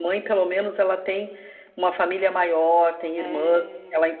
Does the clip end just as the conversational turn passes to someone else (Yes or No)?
No